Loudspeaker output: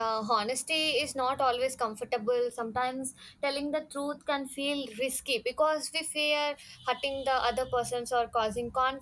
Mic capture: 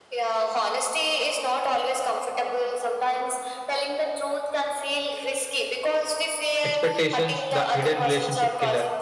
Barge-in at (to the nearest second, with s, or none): 7 s